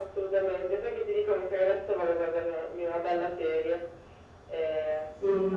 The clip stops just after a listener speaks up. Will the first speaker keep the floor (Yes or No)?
No